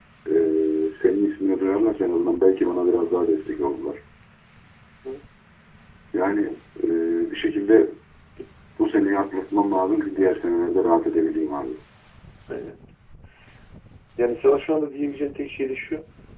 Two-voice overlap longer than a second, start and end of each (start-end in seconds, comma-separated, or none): none